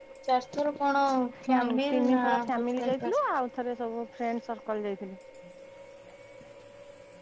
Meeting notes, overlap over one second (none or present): present